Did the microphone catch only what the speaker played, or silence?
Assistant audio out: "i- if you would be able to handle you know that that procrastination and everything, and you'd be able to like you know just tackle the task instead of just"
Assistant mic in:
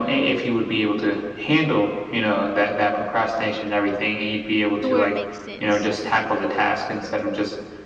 No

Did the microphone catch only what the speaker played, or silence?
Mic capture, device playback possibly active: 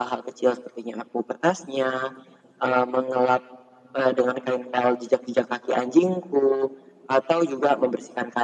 Yes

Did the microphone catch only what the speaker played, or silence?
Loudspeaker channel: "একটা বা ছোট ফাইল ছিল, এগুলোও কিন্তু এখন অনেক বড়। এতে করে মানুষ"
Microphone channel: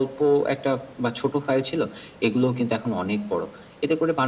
Yes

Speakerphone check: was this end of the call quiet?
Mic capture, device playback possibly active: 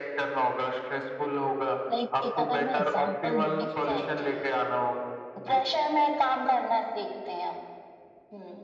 No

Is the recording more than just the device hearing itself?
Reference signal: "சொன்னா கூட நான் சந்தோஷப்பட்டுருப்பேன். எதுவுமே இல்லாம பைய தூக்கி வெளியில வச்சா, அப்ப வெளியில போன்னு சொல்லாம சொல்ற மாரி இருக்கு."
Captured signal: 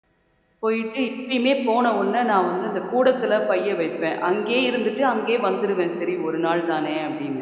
Yes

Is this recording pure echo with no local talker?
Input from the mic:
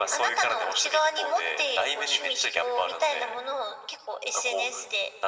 Yes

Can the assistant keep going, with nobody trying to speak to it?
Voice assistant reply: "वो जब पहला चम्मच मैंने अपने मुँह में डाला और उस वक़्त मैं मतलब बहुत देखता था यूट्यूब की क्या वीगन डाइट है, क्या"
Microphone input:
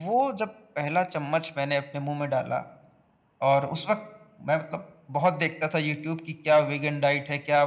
Yes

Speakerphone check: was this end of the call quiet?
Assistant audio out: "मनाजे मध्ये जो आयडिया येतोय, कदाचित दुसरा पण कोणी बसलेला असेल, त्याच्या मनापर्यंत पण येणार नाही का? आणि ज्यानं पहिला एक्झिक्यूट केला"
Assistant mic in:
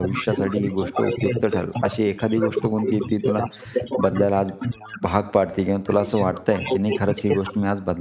No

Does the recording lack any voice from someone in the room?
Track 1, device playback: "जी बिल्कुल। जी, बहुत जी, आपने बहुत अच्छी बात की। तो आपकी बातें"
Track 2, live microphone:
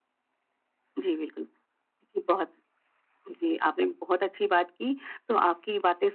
Yes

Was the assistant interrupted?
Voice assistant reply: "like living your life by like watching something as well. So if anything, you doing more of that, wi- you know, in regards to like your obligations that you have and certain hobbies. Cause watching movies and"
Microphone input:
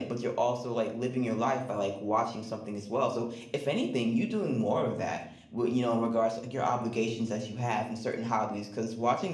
No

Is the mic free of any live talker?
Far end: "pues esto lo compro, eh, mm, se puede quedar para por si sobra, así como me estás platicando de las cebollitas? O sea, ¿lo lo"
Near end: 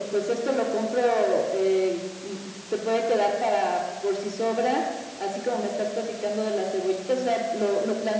Yes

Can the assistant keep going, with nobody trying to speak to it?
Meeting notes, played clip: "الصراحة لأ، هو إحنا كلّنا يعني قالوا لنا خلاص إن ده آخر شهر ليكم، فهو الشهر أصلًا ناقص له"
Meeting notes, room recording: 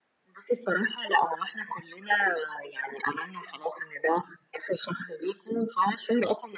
Yes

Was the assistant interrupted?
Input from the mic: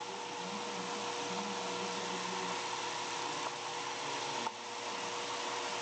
No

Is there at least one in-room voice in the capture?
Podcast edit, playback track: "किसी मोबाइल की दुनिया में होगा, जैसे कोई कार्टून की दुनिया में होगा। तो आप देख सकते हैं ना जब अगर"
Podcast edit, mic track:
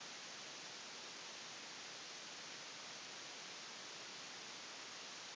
No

